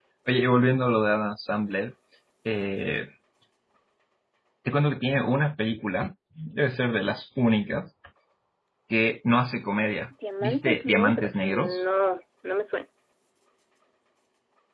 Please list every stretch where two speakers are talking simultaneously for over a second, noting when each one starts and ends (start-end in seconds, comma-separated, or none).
10.4-11.8